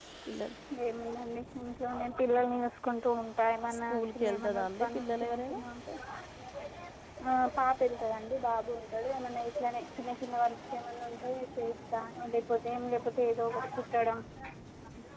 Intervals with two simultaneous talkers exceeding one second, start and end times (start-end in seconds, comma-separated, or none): 3.8-5.6